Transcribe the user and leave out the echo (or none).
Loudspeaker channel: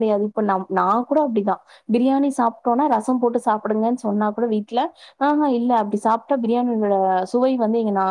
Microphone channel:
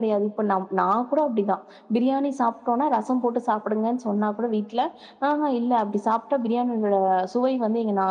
none